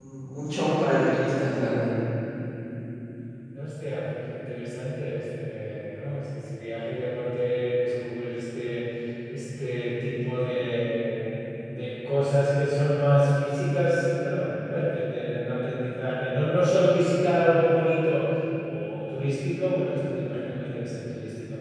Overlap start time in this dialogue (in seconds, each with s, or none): none